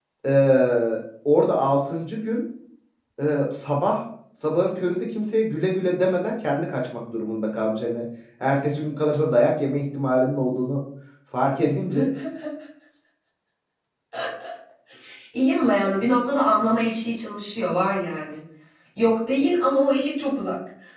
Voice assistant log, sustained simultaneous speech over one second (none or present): none